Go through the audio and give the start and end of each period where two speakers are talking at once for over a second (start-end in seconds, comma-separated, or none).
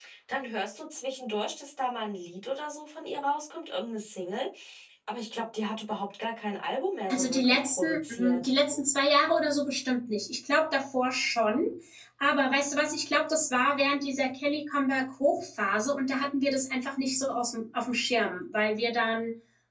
7.1-8.5